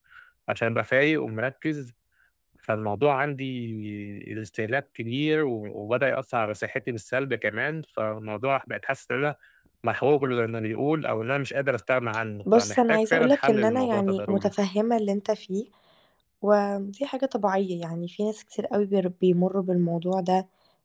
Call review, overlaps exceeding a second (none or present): present